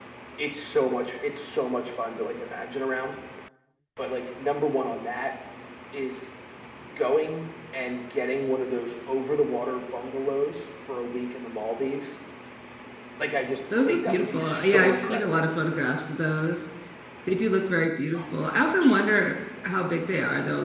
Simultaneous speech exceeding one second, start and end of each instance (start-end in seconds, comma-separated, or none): 13.9-15.4